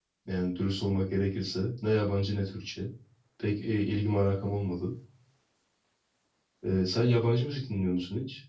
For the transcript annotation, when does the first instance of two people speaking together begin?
none

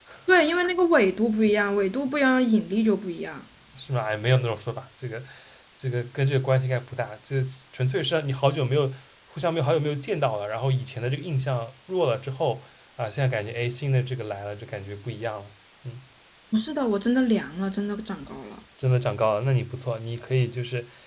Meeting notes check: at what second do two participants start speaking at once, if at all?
none

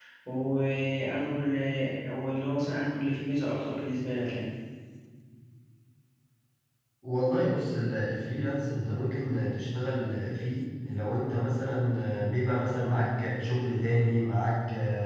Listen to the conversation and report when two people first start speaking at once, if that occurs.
none

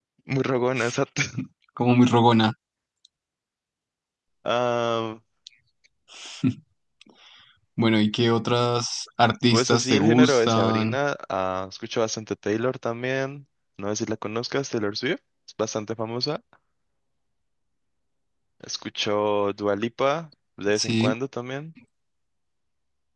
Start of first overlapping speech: 10 s

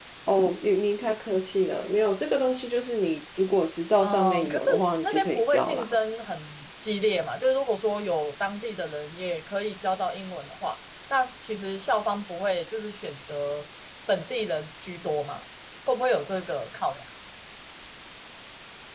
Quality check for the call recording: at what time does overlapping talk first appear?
4 s

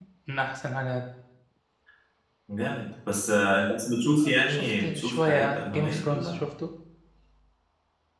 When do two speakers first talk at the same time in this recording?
4 s

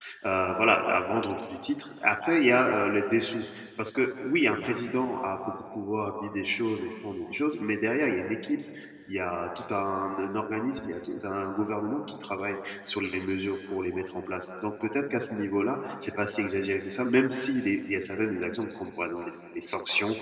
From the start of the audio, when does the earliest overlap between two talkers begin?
none

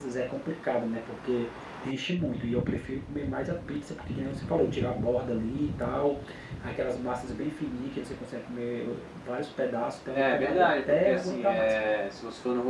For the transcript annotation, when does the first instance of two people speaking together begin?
10 s

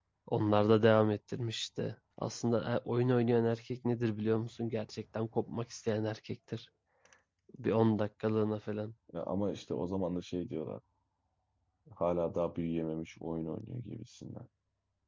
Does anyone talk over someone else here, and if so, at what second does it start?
none

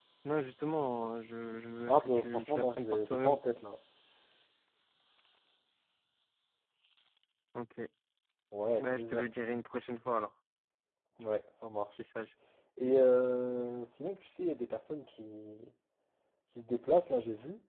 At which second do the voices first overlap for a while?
2 s

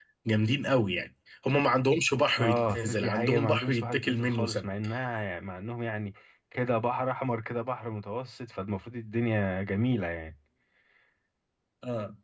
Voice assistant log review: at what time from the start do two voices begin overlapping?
2 s

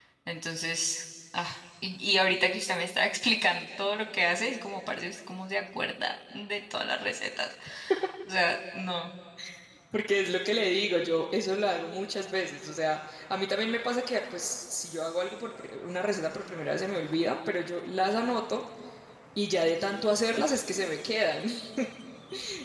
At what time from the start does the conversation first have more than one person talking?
none

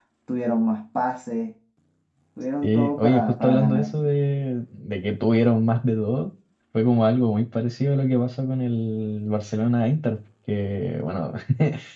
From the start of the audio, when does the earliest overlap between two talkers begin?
3 s

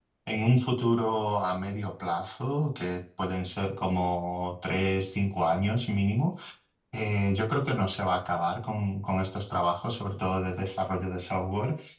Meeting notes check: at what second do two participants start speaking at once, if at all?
none

